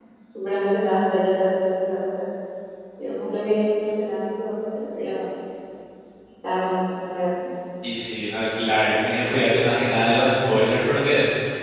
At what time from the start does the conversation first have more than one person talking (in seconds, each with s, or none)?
none